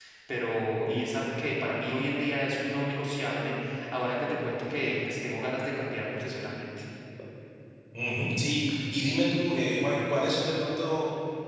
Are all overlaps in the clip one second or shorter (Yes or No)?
Yes